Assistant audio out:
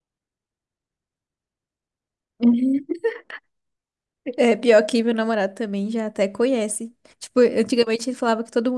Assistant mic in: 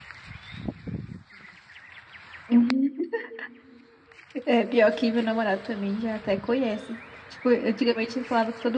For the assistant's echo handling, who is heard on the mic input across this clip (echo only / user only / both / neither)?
echo only